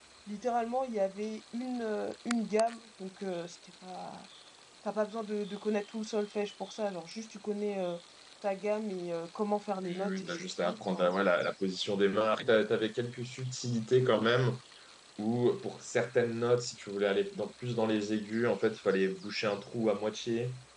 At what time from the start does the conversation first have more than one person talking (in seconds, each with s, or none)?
9.8 s